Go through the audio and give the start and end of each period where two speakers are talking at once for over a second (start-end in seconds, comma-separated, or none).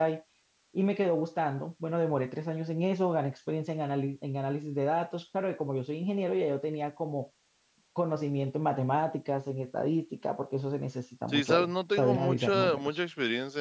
11.3-13.0